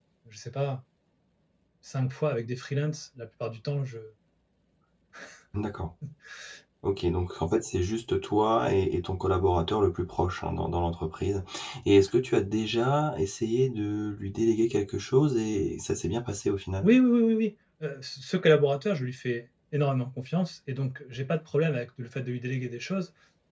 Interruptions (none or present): none